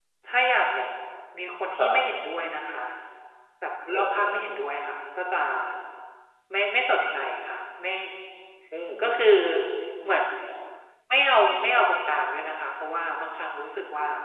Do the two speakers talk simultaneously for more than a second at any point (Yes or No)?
No